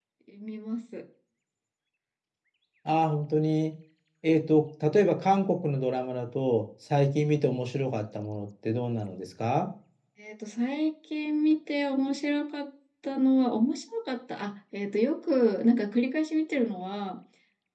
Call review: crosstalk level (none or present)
none